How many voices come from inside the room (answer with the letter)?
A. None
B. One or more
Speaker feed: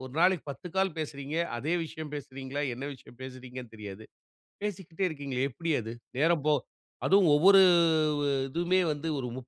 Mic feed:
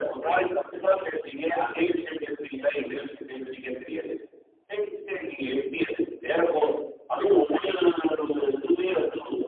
A